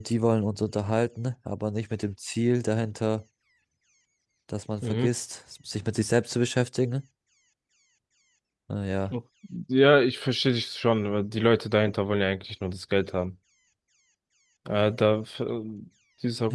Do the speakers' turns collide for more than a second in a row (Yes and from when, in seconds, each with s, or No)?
No